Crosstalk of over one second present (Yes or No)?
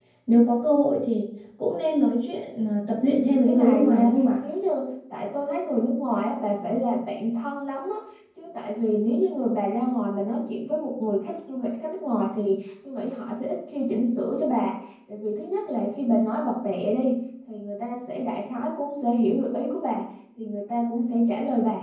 Yes